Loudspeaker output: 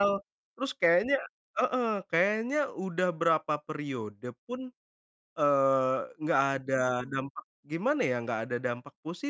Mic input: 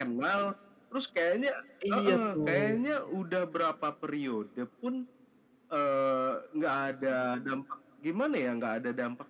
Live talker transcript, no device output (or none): Iya, tuh.